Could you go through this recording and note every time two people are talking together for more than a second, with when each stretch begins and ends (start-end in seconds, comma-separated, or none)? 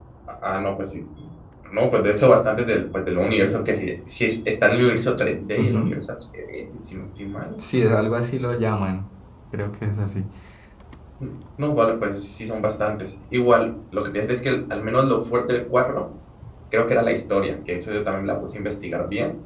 none